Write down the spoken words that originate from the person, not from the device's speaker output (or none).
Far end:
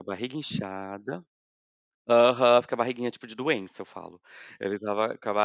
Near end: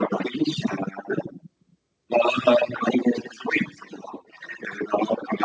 none